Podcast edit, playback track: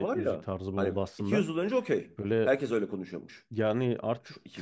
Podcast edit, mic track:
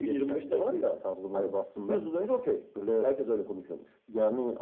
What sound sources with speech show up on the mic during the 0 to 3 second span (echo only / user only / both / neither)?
echo only